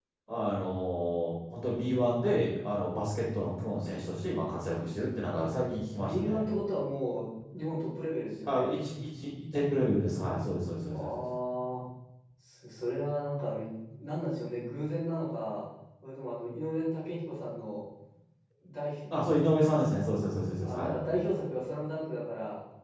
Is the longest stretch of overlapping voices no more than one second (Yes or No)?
Yes